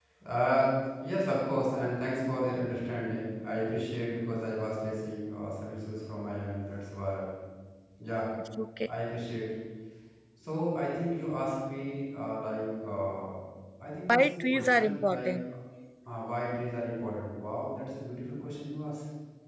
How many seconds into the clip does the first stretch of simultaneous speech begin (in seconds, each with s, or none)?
14.1 s